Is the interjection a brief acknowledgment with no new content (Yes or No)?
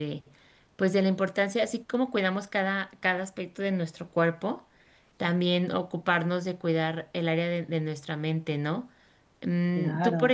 Yes